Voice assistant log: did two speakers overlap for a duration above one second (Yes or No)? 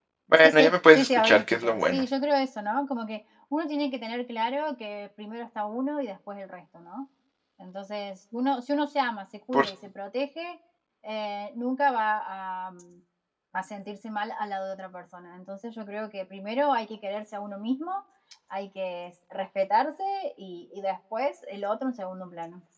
Yes